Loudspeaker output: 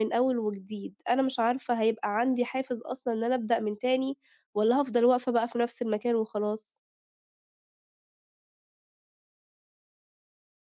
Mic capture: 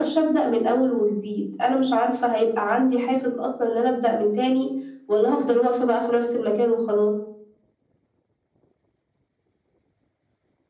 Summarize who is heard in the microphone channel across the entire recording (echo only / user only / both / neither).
echo only